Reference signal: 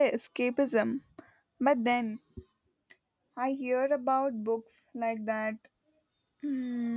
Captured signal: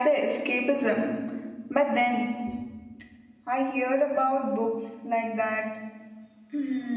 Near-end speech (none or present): none